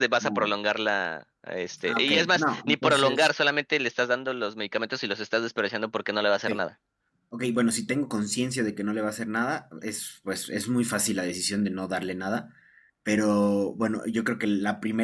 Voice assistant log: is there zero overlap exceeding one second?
No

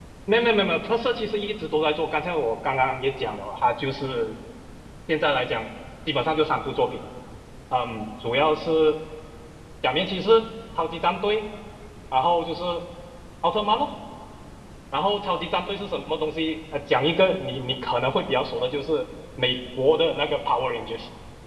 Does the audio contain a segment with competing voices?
No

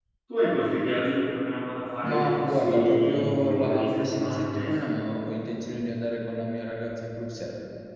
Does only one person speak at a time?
No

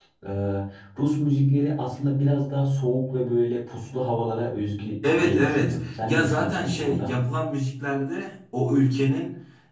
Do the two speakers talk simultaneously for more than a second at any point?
Yes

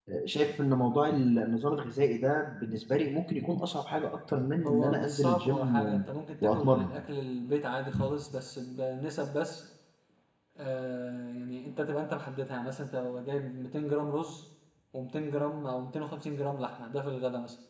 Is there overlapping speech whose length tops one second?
Yes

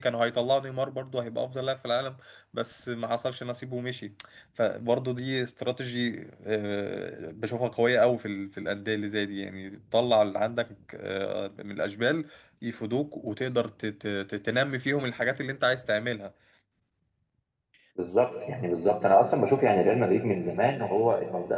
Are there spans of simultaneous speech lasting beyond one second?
No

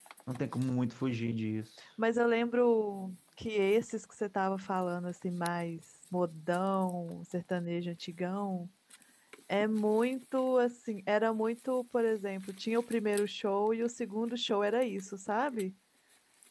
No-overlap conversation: Yes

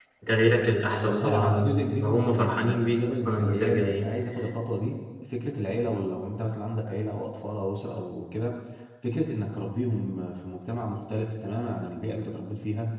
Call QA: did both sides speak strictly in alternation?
No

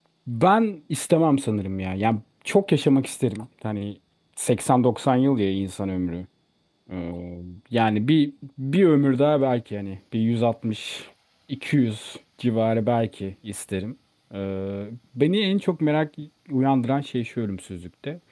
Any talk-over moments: No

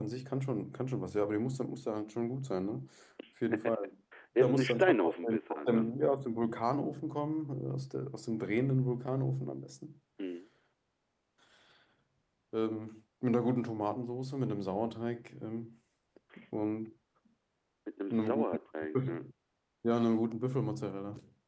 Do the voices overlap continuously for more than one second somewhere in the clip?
Yes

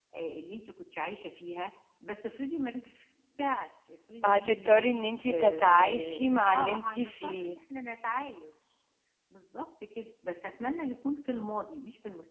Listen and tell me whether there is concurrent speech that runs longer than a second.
Yes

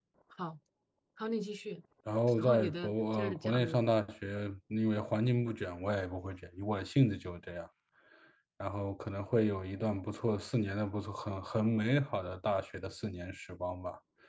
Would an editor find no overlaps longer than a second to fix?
No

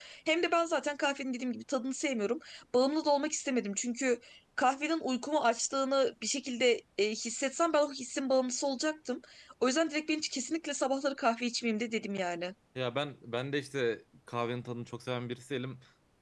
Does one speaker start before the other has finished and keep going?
No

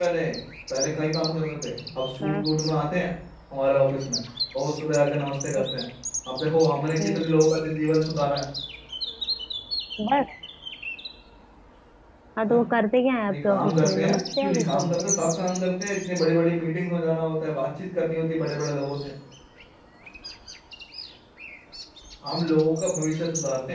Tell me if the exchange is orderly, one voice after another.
No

